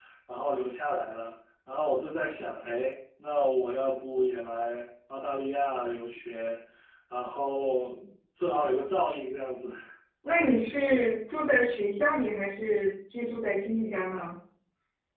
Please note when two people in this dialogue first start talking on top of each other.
none

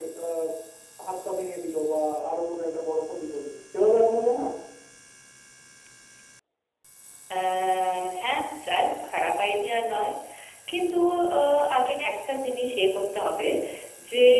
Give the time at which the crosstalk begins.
none

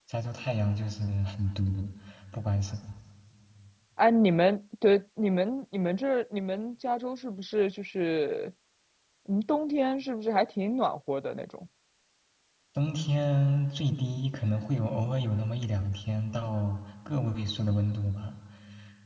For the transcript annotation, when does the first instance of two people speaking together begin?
none

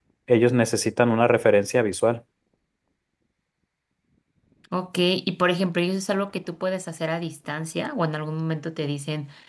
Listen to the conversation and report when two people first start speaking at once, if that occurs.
none

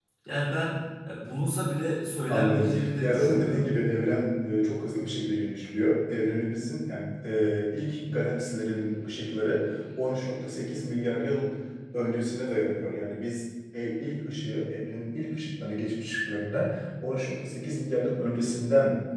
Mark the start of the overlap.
2.3 s

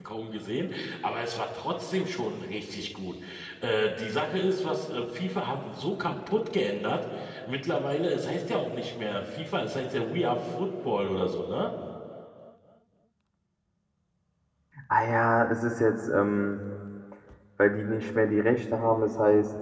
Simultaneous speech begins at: none

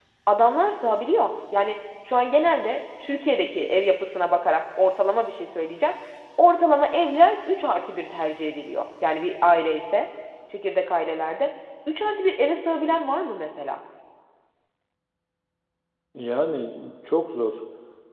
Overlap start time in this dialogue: none

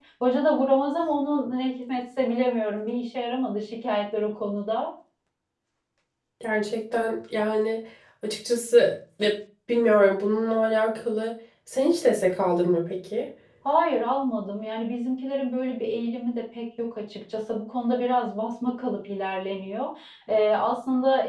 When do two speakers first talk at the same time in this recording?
none

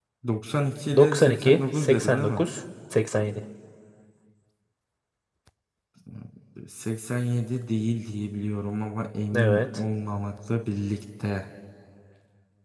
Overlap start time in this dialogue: 0.9 s

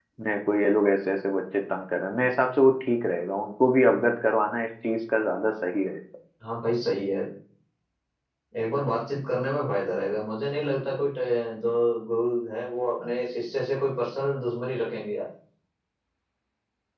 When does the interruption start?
none

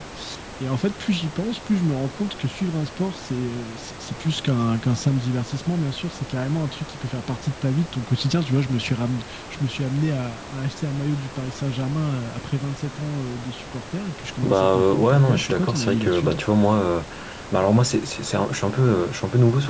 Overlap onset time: 14.4 s

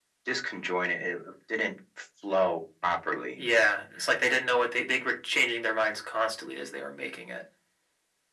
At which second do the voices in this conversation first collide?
none

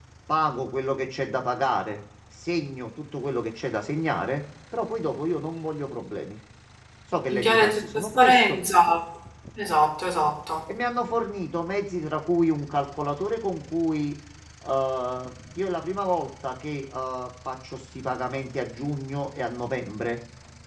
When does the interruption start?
7.3 s

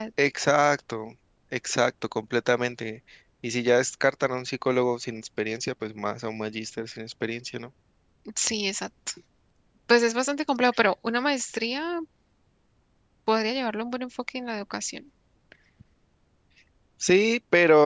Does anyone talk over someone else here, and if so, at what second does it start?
none

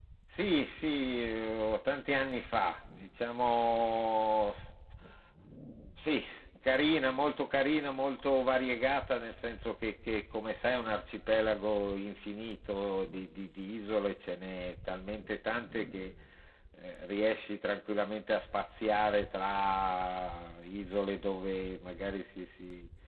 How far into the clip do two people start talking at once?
none

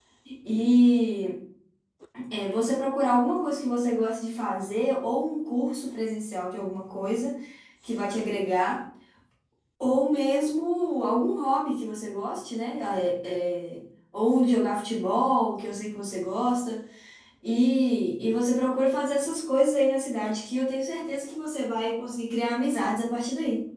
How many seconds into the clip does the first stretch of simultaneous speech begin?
none

